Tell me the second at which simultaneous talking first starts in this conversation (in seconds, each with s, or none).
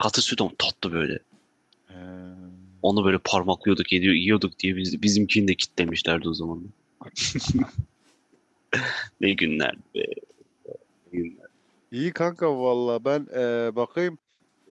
none